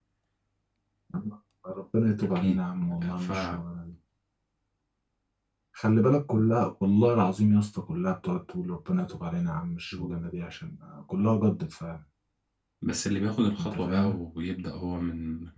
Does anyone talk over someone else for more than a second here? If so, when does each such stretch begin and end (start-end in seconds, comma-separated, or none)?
none